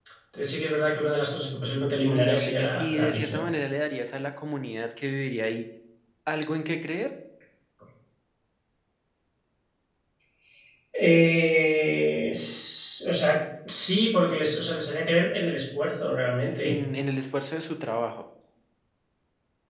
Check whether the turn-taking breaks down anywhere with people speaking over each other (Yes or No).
Yes